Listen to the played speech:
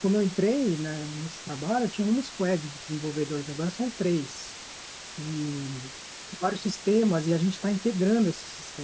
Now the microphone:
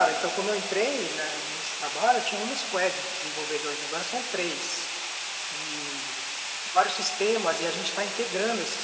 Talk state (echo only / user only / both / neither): echo only